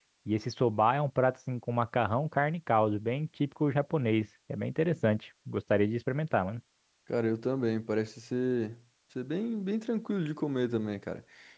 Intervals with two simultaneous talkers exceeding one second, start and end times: none

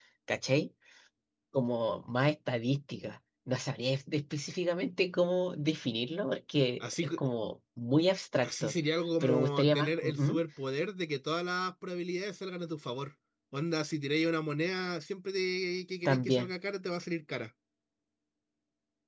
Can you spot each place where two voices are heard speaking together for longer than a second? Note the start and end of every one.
9.2-10.4

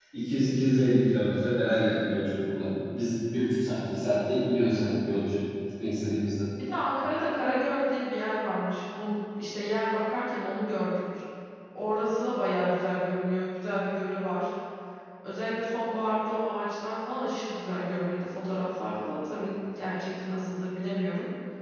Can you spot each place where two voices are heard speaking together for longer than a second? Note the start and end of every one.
none

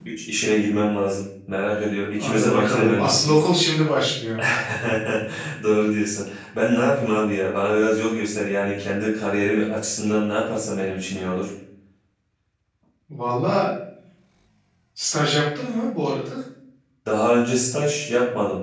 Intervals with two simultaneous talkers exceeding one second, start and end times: 2.2-3.4

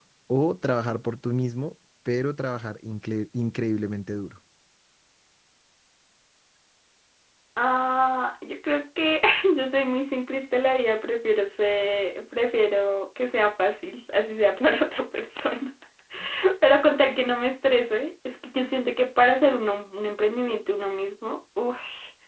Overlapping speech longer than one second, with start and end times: none

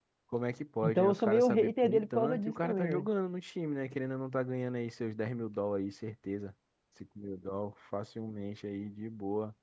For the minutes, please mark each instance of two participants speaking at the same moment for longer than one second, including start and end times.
0.8-3.1

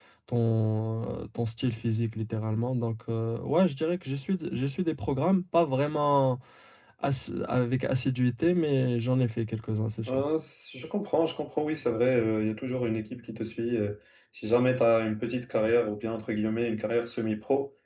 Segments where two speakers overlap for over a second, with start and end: none

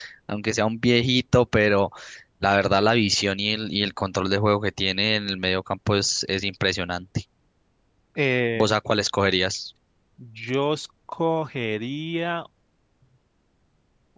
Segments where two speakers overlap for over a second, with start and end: none

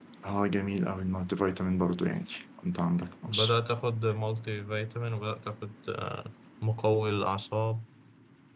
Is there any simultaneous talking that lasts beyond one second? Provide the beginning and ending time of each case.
none

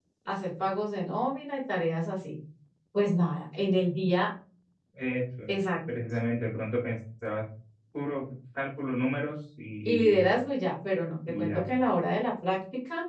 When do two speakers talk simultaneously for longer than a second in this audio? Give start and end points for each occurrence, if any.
none

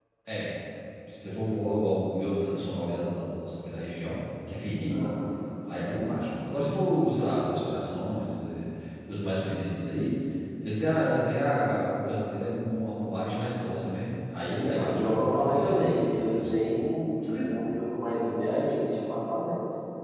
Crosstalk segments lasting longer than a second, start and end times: 14.7-16.5

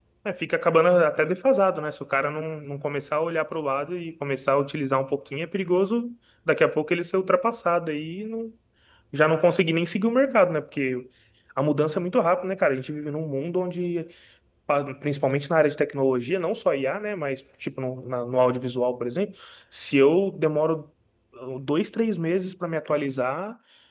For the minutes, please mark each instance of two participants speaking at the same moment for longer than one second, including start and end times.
none

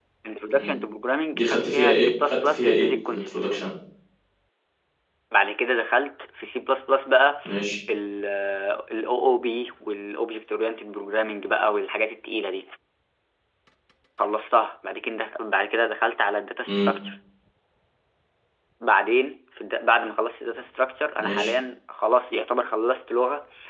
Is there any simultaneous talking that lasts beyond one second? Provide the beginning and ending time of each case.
1.3-3.3

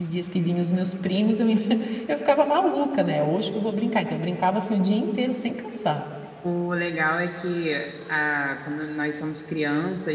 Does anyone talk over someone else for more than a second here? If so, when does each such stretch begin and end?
none

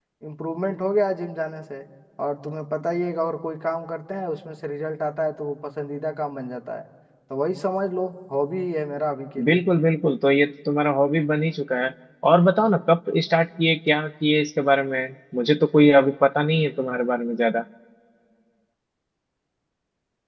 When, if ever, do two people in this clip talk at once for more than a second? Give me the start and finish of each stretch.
none

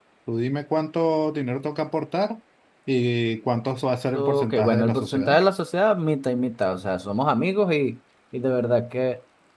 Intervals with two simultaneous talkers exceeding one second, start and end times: 4.1-5.4

